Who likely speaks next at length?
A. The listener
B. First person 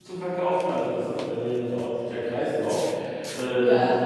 B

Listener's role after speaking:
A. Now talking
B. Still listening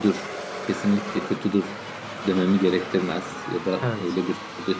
B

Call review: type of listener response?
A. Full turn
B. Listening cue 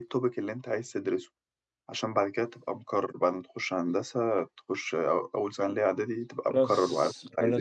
A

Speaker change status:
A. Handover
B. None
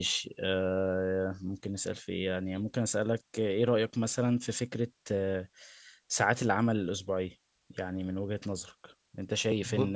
B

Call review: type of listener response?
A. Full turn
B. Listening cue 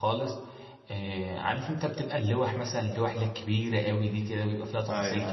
B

